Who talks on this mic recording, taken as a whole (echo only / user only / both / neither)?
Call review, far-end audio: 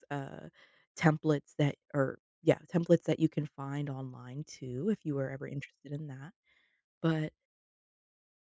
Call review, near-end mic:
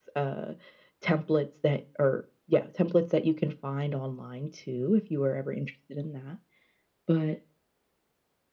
echo only